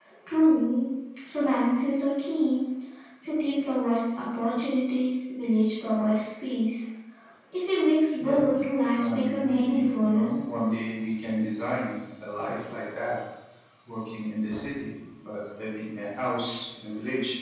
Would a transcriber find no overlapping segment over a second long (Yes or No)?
No